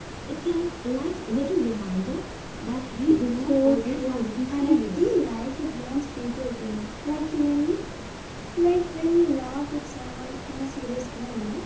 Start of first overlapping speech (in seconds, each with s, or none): 3.3 s